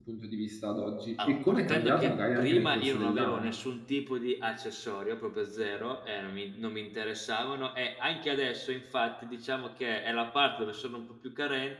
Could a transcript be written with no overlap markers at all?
No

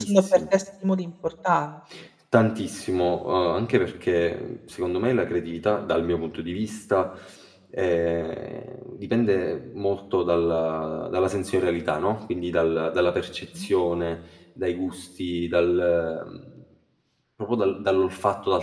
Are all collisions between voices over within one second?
Yes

